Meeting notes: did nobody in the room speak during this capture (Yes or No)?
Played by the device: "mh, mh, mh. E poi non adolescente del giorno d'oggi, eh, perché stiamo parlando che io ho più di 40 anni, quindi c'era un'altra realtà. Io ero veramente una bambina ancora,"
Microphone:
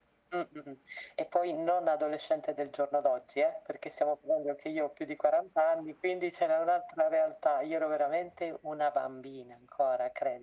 Yes